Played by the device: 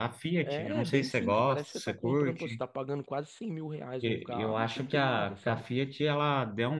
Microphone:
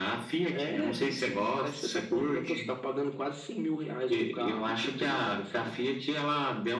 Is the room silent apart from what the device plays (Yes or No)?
Yes